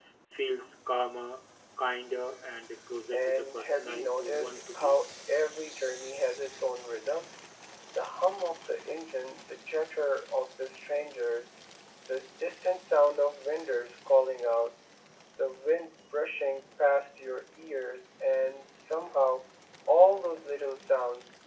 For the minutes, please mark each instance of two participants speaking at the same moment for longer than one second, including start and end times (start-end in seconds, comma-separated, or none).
3.1-5.0